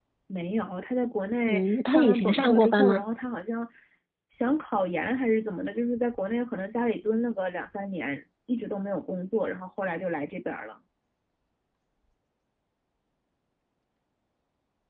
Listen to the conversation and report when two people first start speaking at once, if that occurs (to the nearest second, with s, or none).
1 s